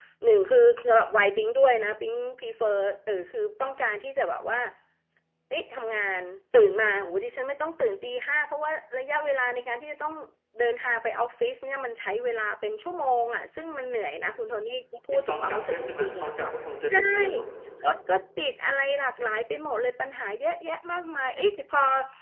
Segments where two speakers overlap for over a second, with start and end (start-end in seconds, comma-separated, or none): 15.1-16.5